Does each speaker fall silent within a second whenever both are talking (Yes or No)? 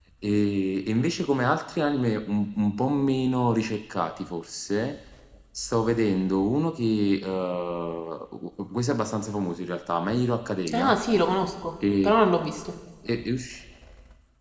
Yes